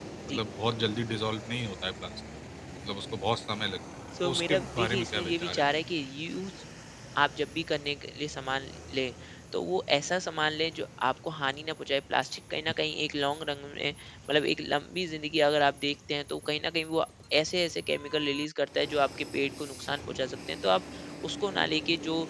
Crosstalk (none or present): present